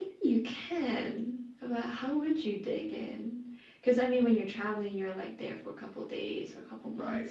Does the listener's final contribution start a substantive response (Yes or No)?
Yes